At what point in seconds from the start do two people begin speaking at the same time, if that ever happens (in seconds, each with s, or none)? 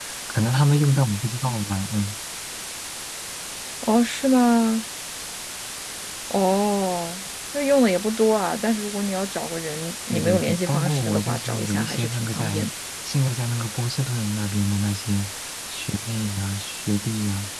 10.1 s